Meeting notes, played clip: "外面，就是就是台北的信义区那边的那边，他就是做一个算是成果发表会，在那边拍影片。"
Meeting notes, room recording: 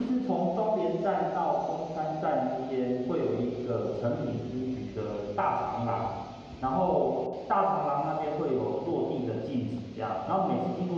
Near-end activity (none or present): present